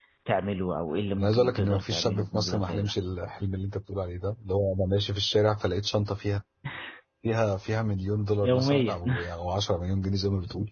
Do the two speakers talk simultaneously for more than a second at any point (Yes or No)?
Yes